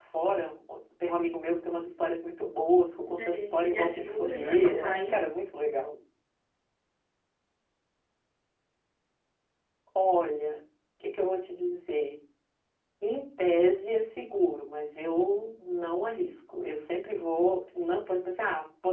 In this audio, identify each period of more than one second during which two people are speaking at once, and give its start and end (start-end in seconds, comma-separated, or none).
3.1-5.2